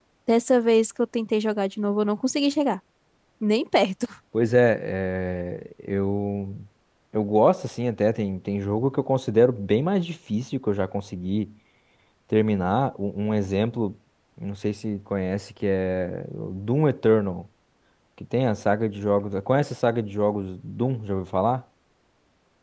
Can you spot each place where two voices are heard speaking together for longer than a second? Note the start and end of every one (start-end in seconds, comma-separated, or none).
none